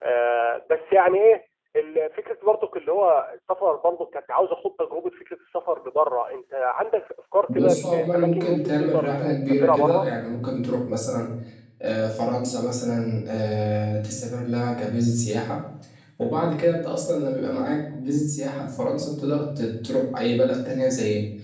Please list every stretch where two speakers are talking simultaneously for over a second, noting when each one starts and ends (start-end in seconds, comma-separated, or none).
7.5-10.1